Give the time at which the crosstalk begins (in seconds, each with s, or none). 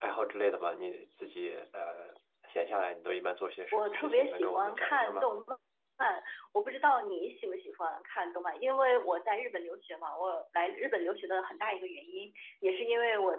3.7 s